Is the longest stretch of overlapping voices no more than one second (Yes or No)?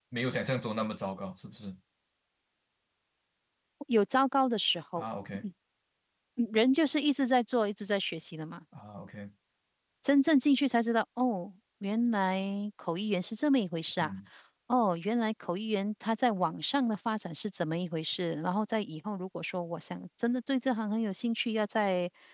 Yes